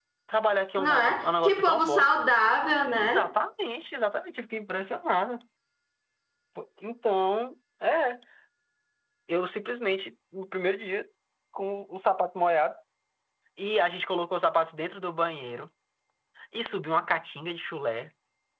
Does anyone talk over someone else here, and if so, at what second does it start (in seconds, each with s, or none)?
0.8 s